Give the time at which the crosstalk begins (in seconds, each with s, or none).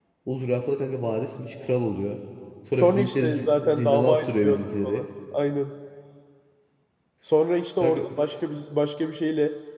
2.7 s